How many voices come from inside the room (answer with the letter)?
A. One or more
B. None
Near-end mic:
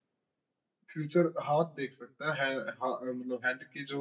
A